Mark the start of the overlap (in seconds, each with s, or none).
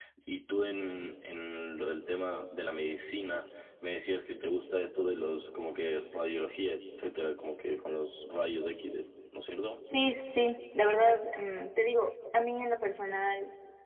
none